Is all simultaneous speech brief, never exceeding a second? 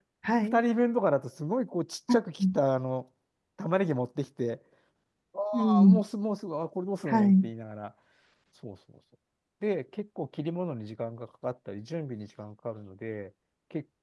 Yes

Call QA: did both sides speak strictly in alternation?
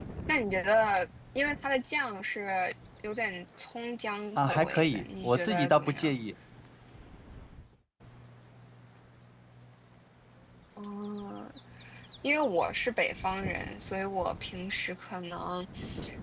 No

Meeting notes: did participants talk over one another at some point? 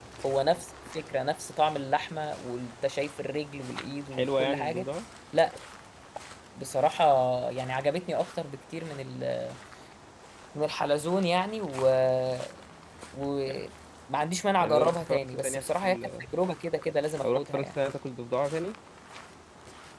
Yes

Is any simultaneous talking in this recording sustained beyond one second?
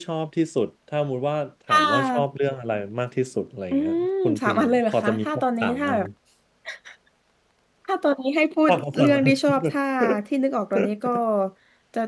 Yes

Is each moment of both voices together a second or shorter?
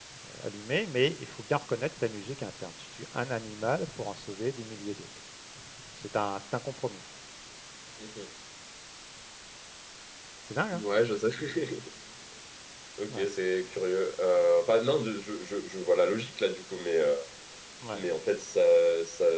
Yes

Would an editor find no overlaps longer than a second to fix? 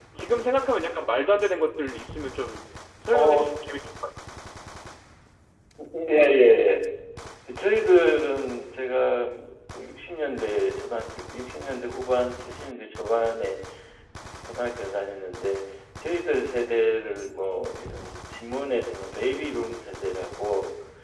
Yes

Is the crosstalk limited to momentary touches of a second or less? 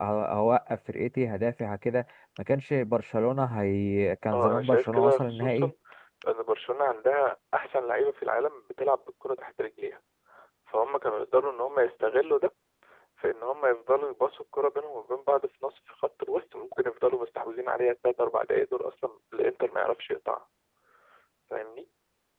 No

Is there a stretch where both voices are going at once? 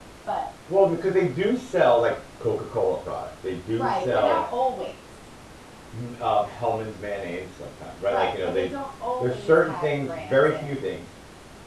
Yes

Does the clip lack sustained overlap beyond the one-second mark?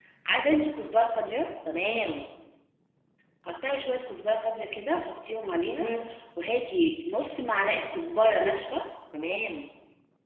Yes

